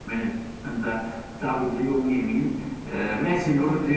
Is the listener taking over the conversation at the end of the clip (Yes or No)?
No